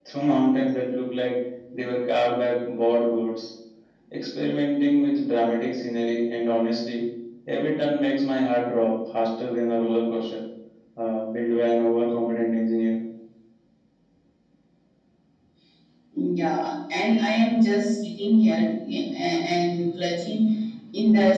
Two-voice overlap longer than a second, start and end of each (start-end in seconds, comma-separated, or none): none